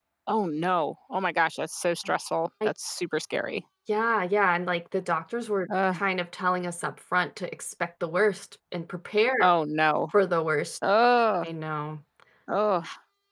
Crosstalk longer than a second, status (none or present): none